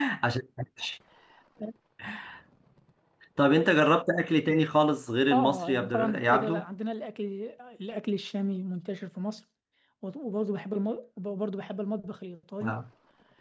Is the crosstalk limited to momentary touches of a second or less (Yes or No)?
No